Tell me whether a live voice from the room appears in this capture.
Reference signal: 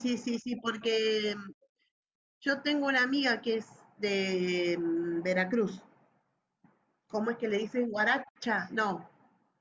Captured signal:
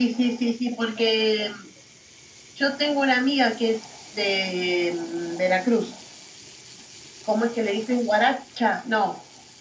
No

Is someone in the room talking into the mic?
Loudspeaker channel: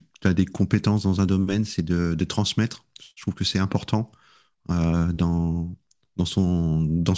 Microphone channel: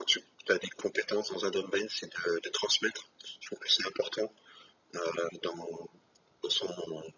No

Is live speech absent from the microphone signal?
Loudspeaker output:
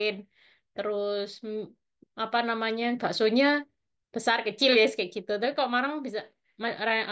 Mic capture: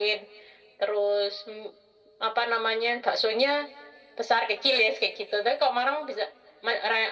Yes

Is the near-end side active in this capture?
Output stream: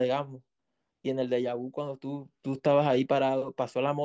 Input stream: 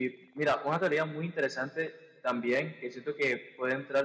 Yes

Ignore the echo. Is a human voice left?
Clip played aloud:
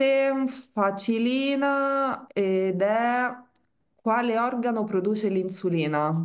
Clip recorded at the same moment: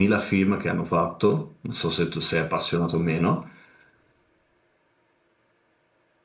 Yes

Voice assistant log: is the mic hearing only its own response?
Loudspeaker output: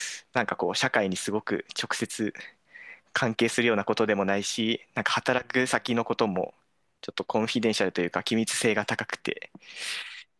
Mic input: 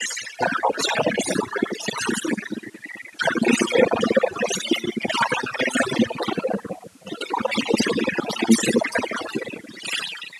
Yes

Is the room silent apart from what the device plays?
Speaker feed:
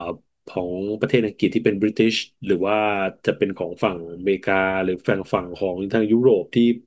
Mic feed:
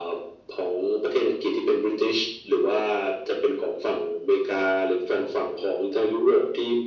Yes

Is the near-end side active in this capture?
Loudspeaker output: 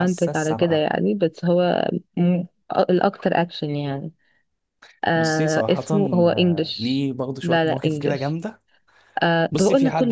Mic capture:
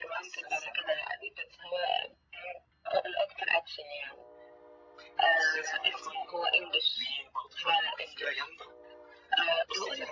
No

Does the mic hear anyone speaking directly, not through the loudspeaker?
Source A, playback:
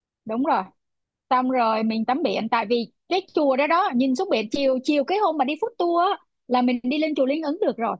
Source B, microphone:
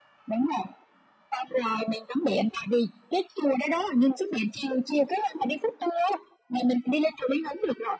No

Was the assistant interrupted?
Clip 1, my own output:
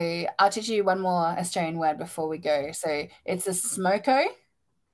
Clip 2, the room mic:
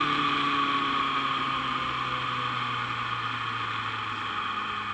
No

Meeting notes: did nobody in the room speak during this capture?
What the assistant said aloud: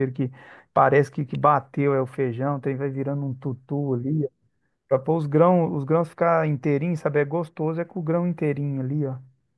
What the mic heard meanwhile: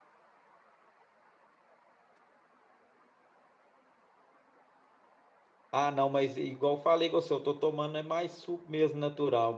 No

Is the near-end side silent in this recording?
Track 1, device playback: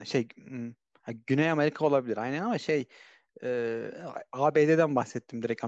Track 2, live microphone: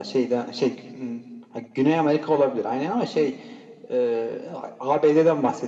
Yes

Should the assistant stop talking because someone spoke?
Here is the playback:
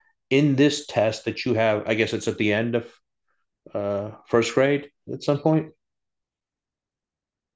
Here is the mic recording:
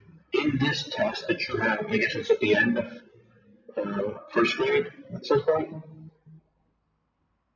No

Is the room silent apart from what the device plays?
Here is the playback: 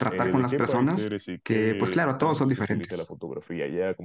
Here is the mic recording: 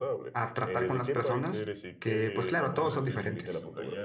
No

